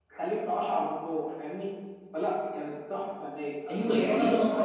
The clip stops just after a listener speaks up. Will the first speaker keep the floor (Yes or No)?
No